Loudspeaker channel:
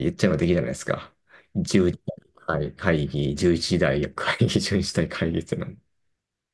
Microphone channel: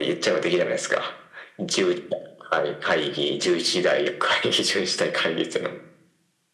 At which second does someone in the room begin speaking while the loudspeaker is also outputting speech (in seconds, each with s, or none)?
none